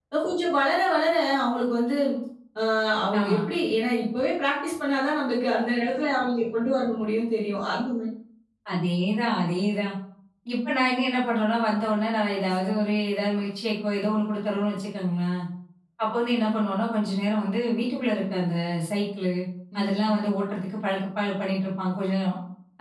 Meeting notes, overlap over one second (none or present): none